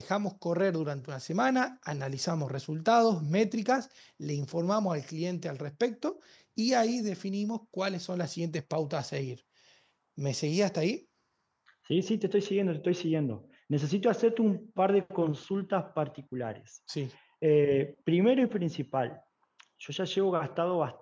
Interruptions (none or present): none